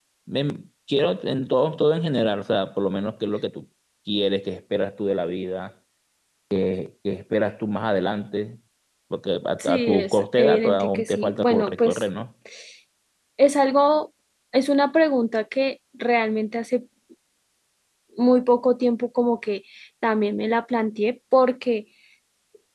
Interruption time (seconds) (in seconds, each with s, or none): 9.6 s